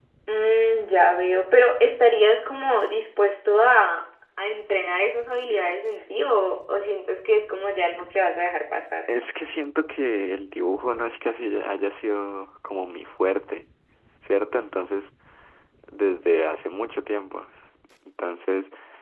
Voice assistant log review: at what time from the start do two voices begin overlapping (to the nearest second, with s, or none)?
none